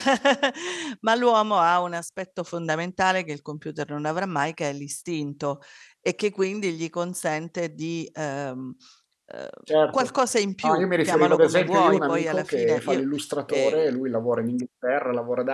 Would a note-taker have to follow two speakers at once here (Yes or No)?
Yes